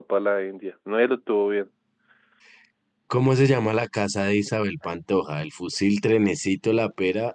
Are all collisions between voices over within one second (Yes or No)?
Yes